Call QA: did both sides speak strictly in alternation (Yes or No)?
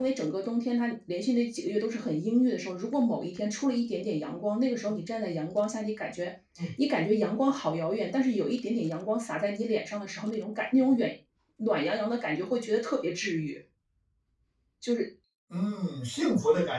Yes